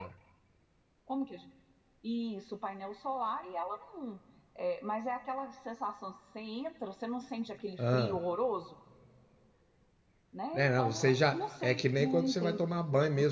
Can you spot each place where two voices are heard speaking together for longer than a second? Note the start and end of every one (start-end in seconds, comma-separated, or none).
10.5-12.7